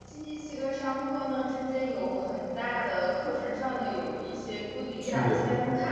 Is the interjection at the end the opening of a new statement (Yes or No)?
No